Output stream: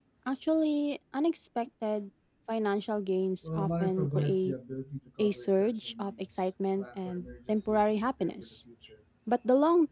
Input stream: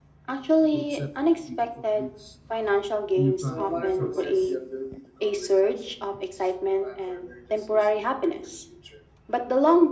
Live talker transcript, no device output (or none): goal setting, and meaningful use of newfound resources.